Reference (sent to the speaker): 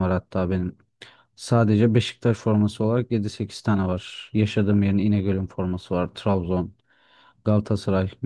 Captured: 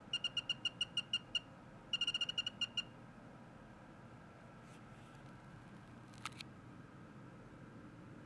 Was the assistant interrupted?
No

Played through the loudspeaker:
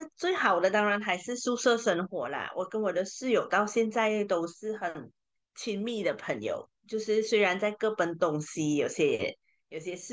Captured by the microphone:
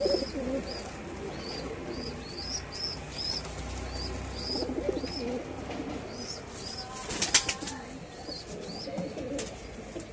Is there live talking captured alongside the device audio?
No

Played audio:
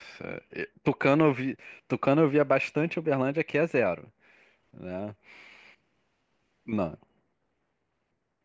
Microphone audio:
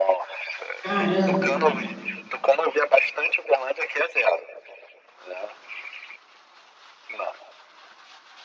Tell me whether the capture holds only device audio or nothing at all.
No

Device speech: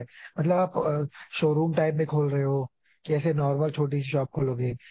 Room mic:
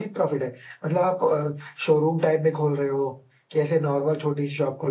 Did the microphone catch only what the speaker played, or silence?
Yes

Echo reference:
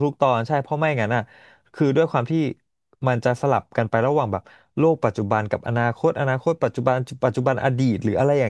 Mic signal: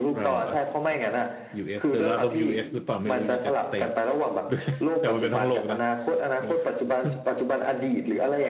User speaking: Yes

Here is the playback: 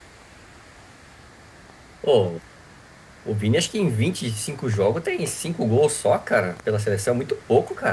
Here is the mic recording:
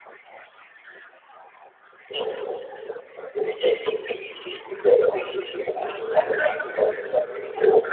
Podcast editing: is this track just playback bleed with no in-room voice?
Yes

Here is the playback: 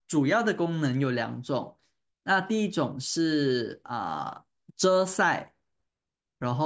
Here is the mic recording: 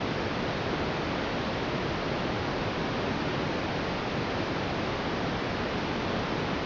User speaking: No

